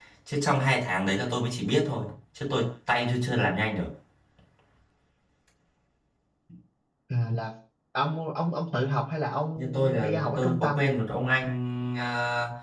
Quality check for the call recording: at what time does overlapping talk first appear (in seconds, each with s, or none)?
9.6 s